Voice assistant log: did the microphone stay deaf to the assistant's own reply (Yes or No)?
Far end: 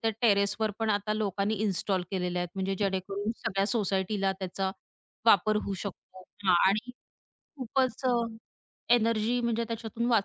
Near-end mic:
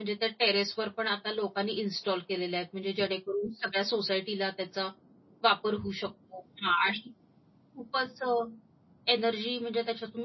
No